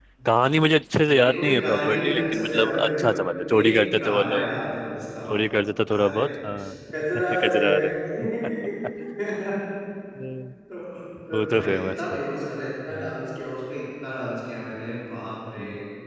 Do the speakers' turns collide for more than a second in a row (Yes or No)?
Yes